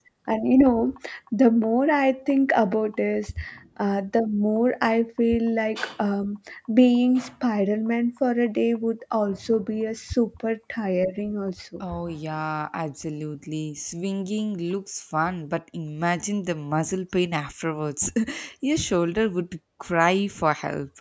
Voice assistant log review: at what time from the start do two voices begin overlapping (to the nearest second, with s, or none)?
none